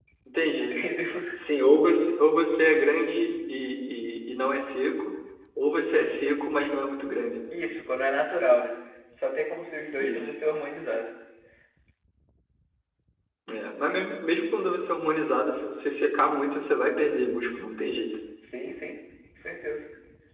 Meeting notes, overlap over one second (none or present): none